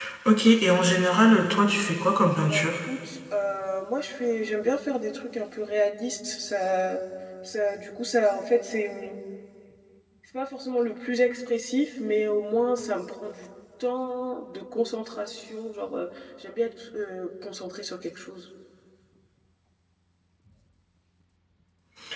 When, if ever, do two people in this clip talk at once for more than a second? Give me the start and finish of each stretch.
none

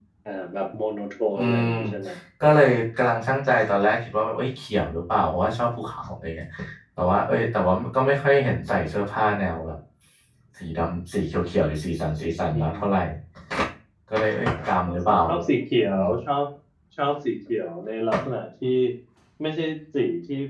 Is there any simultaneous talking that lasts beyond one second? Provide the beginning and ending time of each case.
none

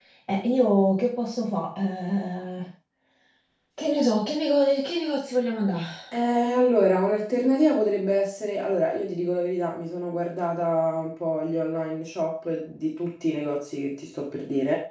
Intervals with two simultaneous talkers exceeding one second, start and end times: none

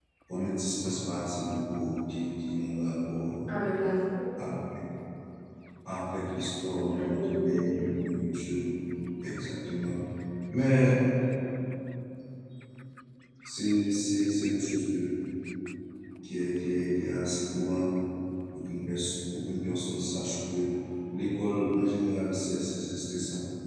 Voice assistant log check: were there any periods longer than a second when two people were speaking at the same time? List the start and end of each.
6.9-8.2

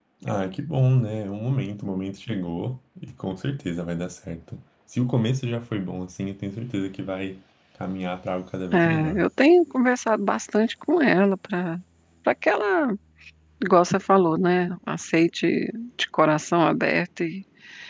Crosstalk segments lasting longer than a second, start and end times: none

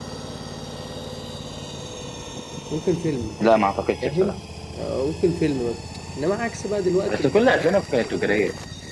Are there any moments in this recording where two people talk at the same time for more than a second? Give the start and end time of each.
none

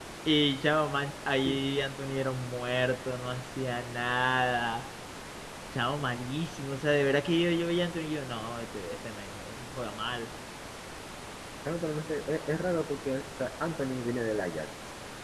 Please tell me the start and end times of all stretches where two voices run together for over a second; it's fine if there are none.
none

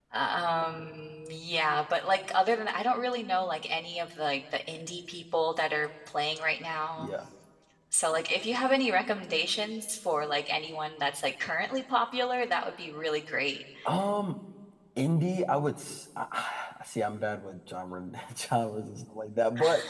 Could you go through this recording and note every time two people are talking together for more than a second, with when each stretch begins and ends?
none

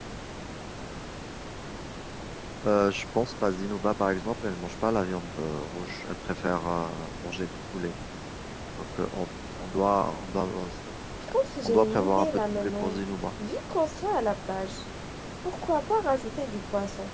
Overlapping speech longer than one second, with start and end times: 11.7-13.0

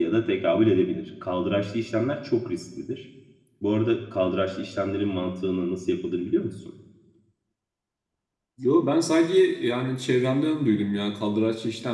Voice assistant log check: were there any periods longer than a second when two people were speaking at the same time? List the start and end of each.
none

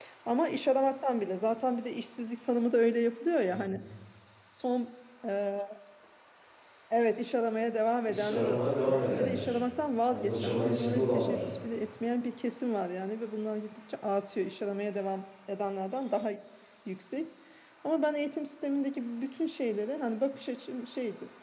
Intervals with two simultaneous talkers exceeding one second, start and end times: 8.0-9.6, 10.1-11.4

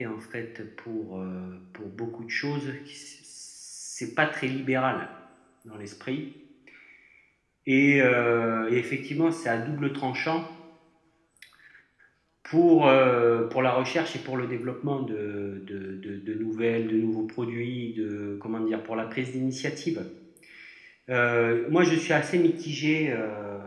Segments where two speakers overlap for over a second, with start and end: none

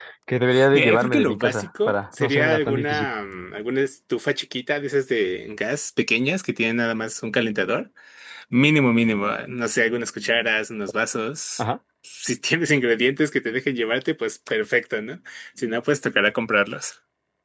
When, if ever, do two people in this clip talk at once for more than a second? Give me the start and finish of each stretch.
0.7-3.1

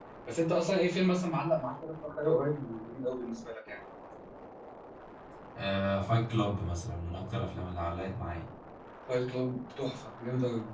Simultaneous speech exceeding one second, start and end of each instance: none

